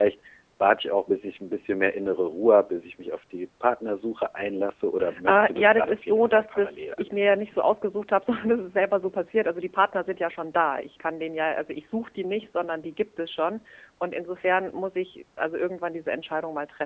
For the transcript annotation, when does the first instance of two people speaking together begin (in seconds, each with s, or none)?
5.0 s